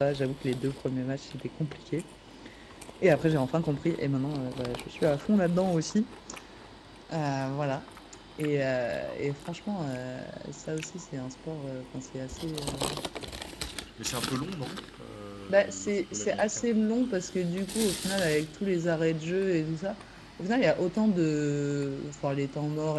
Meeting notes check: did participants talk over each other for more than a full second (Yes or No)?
Yes